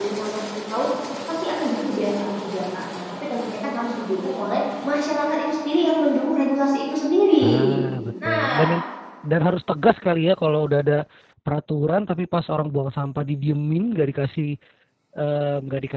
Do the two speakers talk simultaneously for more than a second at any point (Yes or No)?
No